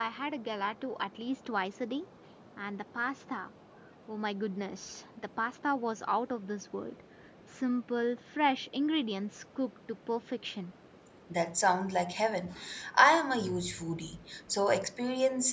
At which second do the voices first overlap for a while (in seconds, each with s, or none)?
none